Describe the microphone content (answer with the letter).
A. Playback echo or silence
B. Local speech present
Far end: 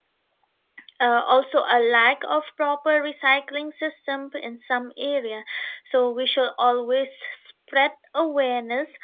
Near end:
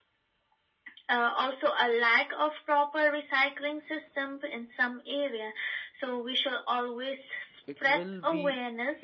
B